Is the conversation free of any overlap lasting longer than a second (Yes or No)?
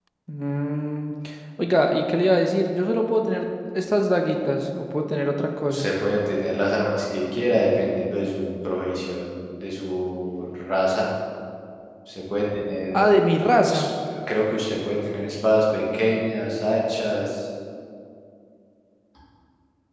Yes